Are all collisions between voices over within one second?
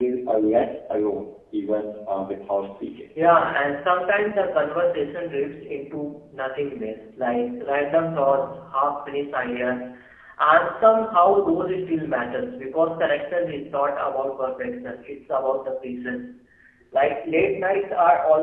Yes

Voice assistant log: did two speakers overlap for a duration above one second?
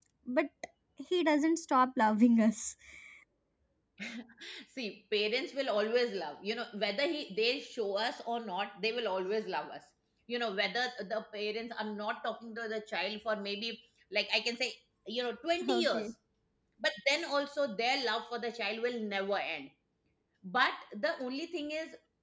No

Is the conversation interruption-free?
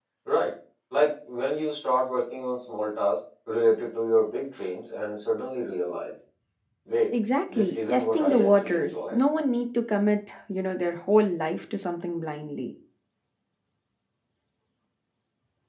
No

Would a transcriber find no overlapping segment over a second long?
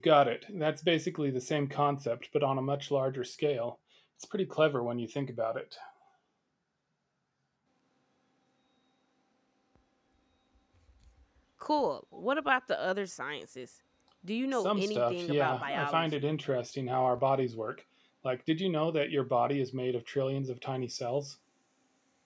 No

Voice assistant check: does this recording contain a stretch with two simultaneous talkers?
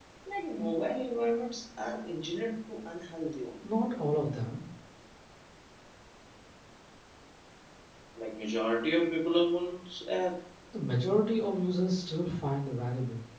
No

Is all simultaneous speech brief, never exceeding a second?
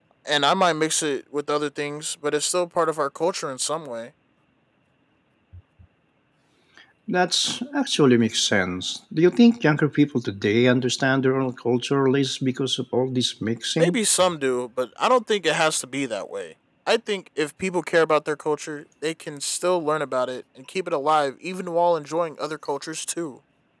Yes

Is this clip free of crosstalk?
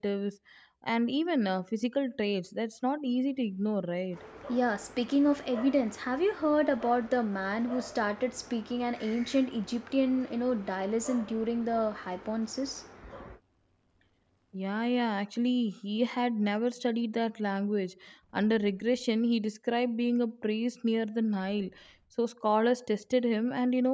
Yes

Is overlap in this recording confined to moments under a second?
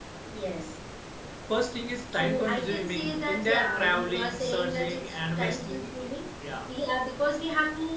No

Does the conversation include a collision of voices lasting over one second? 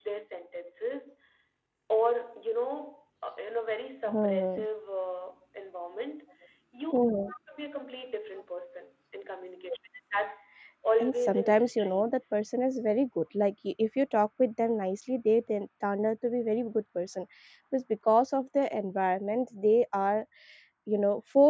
Yes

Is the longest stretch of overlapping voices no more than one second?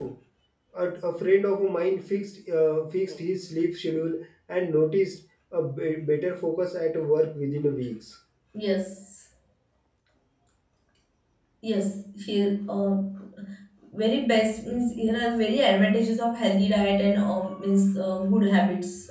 Yes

